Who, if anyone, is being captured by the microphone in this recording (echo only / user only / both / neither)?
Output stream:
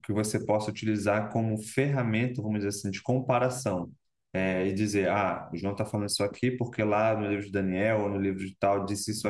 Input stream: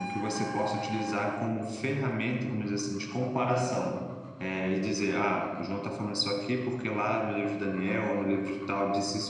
echo only